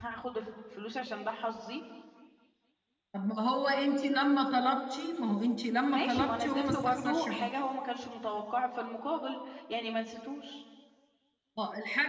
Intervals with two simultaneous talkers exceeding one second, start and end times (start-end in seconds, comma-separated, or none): 5.9-7.5